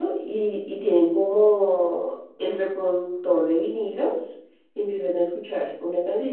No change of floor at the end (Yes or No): Yes